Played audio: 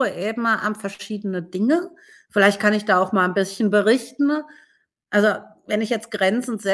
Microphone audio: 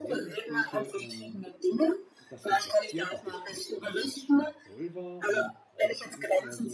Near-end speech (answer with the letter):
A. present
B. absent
A